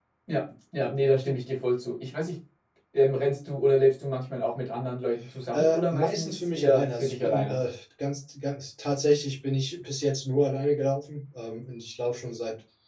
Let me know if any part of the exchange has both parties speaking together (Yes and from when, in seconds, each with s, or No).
Yes, from 5.5 s